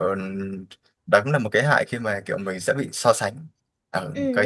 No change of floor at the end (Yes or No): No